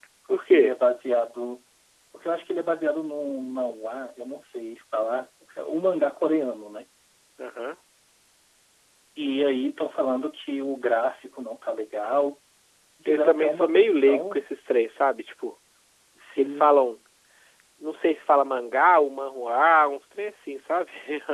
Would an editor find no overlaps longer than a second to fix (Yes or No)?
No